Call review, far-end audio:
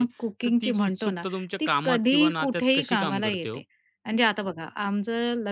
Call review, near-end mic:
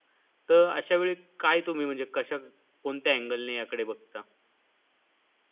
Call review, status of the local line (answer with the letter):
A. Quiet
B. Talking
B